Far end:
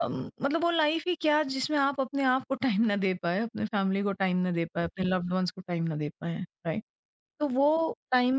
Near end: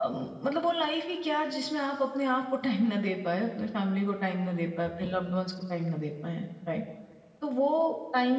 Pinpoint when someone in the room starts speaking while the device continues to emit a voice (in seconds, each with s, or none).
none